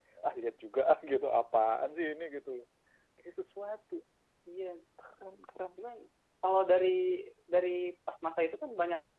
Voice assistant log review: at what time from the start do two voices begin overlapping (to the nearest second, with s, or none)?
none